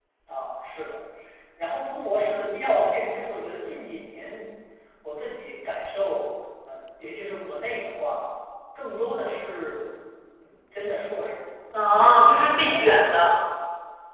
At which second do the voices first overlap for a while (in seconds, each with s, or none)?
11.7 s